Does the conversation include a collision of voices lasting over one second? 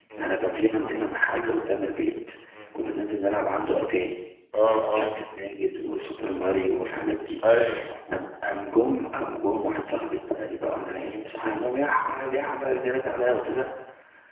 No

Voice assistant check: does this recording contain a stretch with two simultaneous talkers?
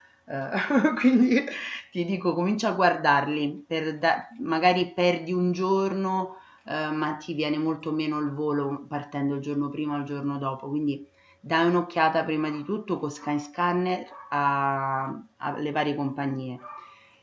No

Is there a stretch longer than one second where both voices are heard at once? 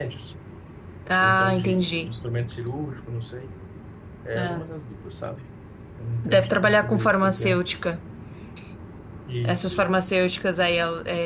Yes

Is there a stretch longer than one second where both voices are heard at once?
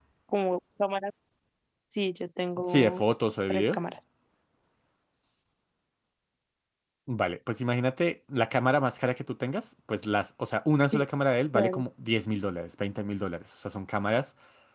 No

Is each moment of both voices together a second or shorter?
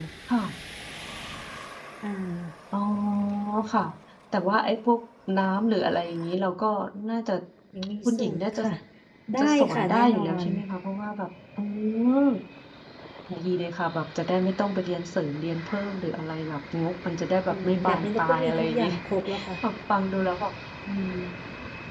No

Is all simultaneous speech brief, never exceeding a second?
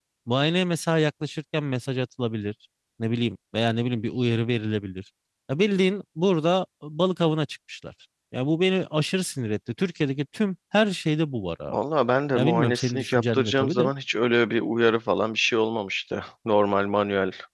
No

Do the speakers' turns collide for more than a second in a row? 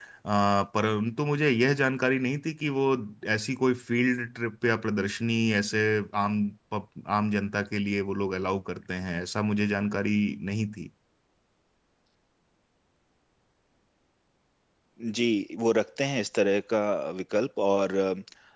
No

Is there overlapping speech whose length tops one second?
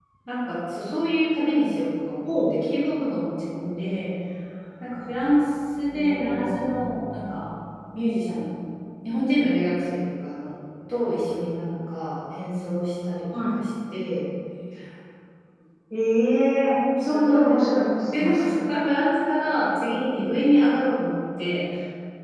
Yes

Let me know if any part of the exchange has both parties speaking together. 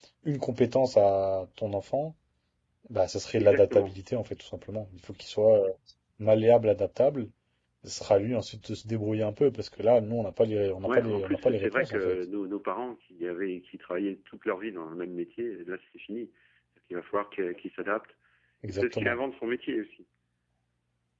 Yes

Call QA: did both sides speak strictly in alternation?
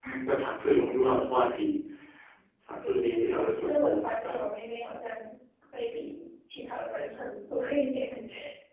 No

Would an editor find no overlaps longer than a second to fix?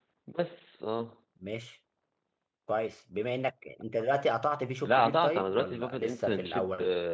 No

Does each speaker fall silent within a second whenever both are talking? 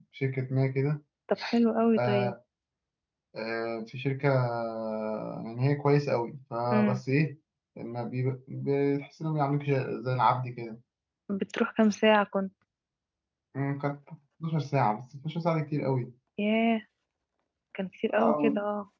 Yes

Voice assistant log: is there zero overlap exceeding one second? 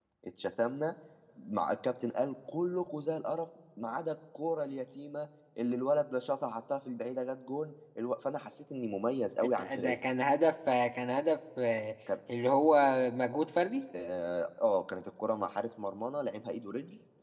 Yes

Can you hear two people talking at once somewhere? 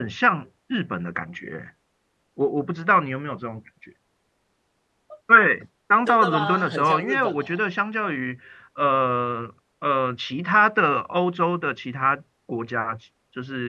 Yes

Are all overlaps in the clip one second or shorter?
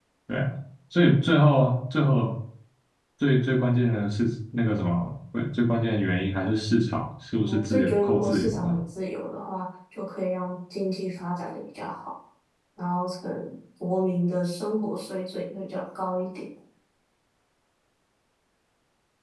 No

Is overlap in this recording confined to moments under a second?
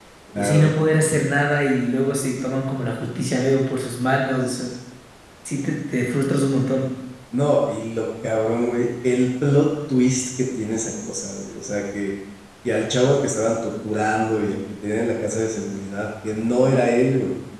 Yes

